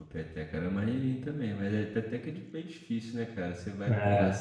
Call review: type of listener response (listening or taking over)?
listening